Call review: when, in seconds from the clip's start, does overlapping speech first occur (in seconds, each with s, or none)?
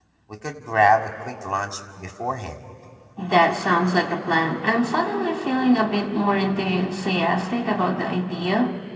none